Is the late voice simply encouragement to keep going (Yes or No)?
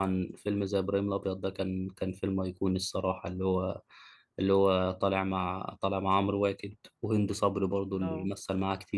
Yes